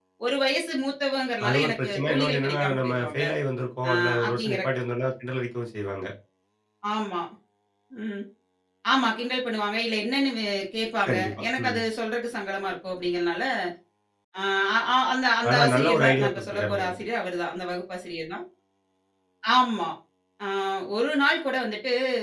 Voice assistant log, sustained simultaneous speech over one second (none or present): present